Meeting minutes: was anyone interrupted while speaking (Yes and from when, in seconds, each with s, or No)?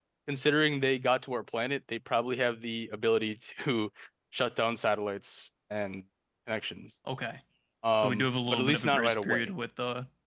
Yes, from 8.0 s